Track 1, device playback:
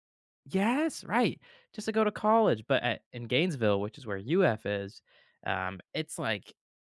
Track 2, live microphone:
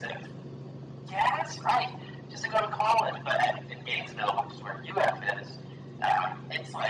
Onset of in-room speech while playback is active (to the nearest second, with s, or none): none